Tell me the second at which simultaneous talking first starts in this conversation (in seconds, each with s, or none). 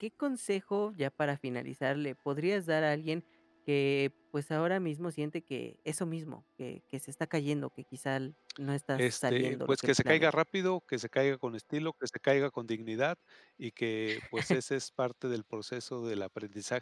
8.9 s